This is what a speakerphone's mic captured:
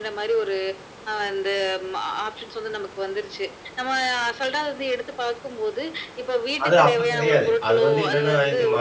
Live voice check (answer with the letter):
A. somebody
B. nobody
A